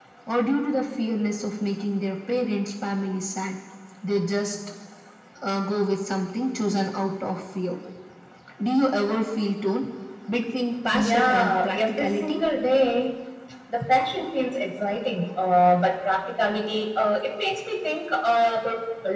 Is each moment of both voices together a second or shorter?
No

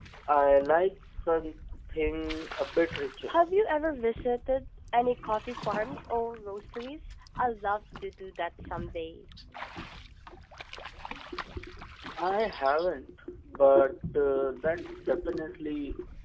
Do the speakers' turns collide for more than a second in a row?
No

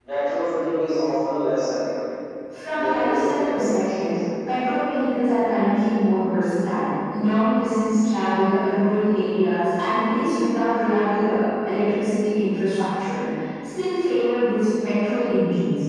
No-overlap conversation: No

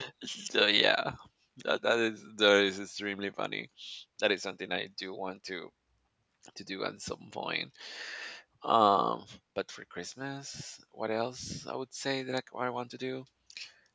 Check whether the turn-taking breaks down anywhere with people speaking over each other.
No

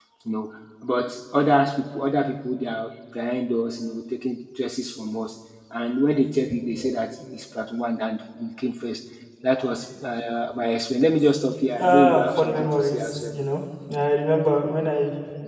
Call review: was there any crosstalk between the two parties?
Yes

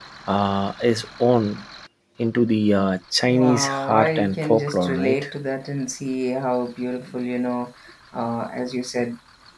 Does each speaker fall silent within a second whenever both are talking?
No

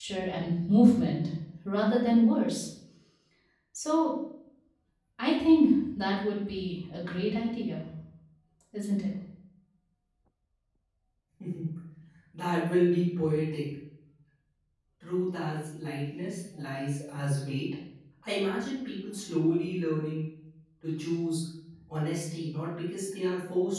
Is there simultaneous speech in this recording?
No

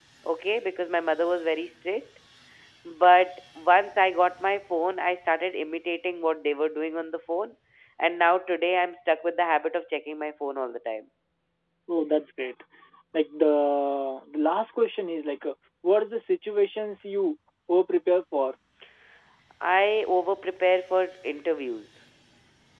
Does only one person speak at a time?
Yes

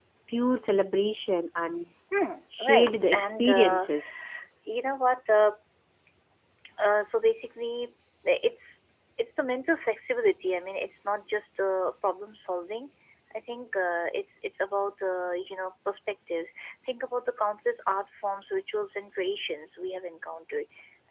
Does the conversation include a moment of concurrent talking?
Yes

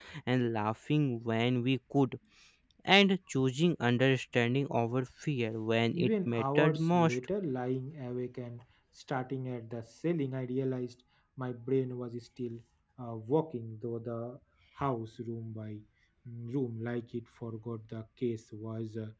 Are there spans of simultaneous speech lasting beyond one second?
Yes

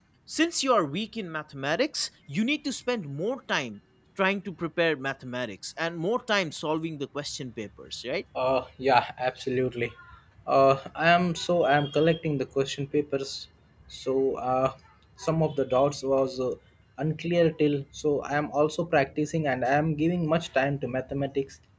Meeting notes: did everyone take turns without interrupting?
Yes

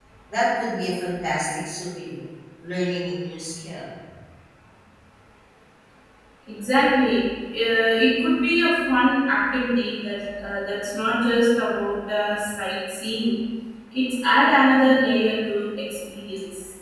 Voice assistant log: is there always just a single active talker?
Yes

